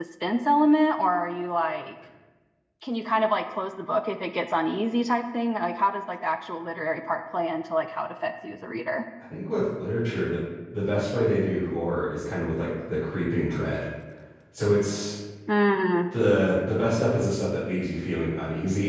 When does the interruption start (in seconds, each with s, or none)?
none